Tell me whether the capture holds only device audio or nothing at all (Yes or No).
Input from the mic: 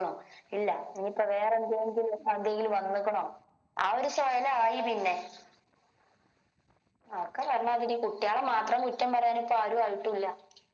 Yes